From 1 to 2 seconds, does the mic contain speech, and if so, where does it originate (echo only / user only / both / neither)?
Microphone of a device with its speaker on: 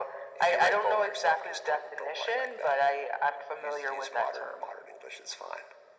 echo only